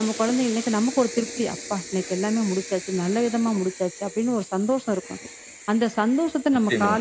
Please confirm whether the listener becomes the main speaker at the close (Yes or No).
No